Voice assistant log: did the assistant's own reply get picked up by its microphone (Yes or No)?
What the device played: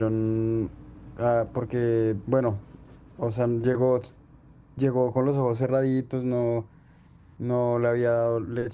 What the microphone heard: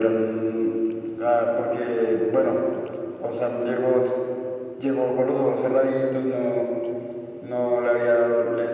Yes